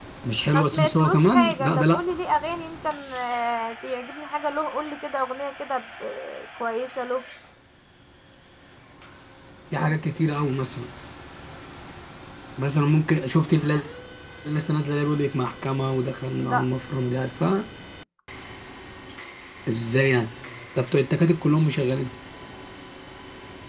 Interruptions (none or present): present